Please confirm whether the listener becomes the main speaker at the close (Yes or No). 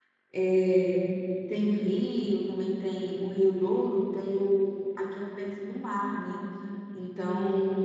No